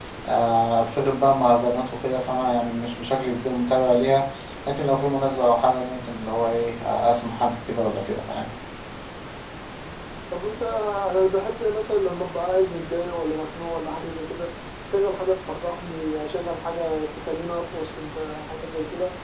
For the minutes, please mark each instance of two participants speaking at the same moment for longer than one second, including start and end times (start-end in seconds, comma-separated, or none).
none